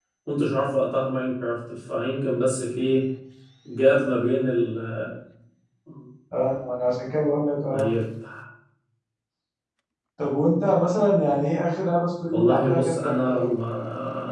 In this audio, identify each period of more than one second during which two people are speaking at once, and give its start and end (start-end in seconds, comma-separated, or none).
12.3-13.6